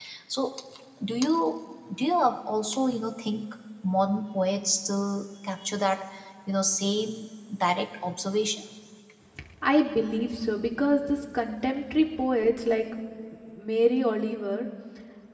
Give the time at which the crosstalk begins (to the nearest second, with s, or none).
none